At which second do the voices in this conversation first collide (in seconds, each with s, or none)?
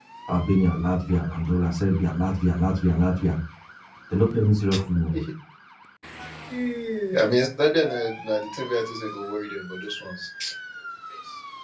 none